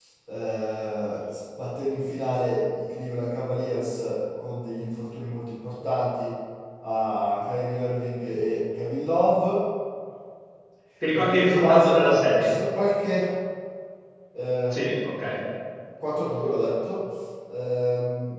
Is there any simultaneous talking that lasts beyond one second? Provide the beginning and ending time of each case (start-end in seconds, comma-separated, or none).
11.1-12.5